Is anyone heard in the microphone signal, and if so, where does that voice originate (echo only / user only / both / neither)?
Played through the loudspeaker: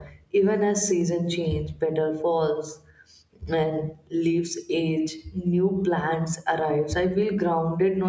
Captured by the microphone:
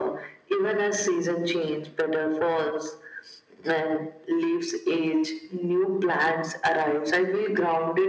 echo only